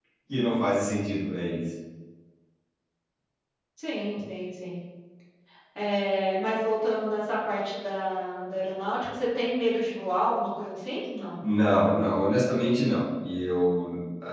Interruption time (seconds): none

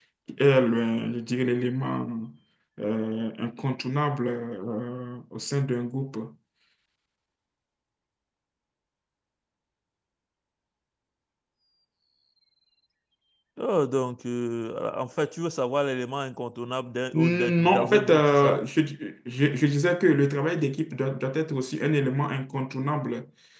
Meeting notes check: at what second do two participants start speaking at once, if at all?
17.1 s

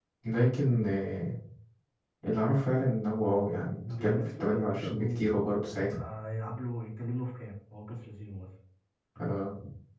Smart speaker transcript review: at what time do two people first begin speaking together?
3.9 s

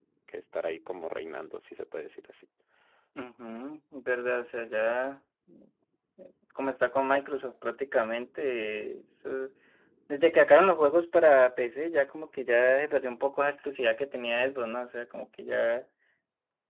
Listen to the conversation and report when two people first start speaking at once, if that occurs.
none

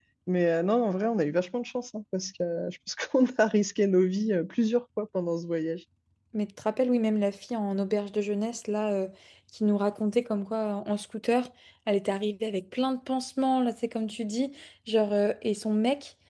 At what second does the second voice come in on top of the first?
none

